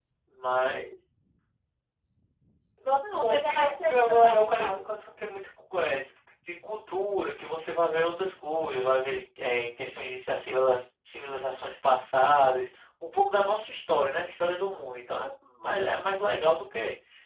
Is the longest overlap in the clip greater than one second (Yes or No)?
Yes